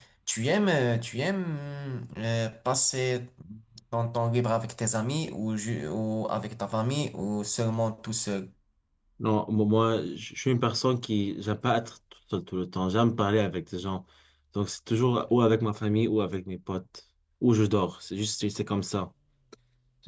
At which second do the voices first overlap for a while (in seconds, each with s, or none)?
none